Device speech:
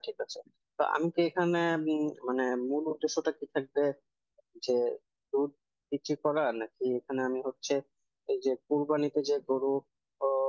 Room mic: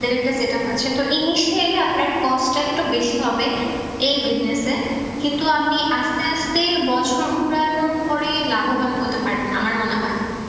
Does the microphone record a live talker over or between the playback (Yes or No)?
Yes